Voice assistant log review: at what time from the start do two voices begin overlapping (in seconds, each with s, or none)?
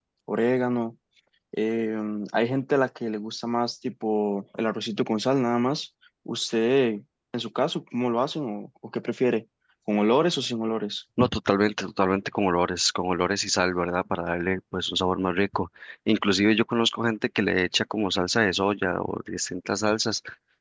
none